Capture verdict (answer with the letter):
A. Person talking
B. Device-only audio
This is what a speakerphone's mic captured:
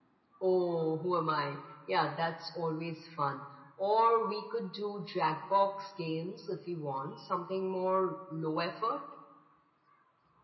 B